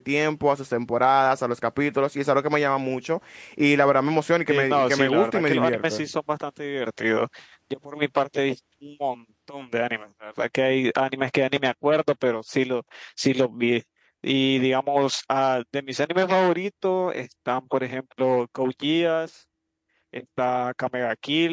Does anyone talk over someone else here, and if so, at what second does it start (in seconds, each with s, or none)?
4.5 s